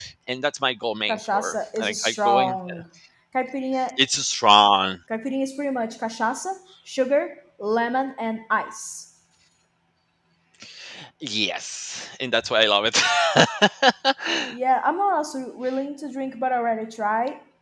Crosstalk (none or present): present